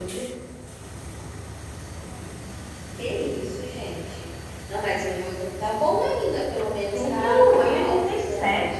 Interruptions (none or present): present